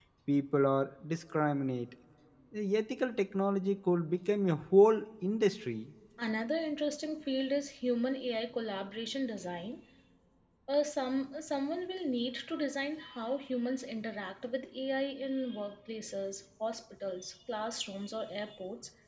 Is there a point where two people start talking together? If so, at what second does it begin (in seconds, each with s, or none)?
none